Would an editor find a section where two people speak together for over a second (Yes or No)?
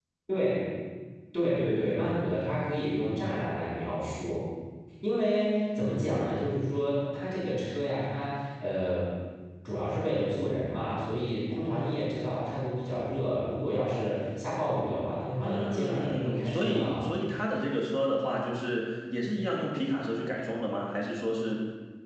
Yes